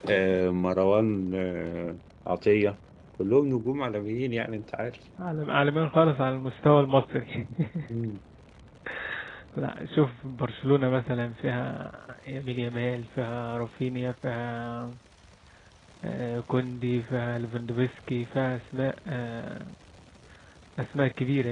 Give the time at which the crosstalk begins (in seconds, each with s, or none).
none